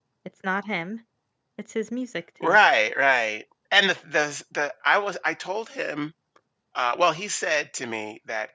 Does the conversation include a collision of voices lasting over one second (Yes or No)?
No